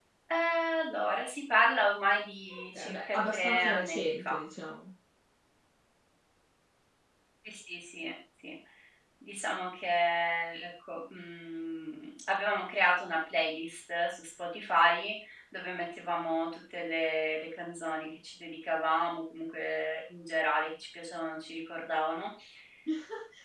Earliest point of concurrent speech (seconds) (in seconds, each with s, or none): 2.5 s